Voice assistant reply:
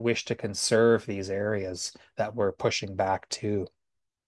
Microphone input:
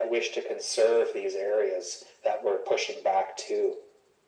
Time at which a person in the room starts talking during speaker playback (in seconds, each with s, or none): none